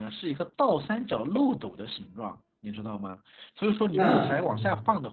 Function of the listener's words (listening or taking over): listening